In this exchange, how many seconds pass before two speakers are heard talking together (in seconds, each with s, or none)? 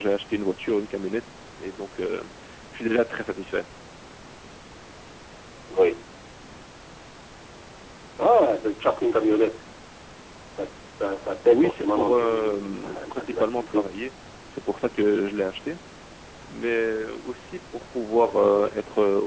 11.5 s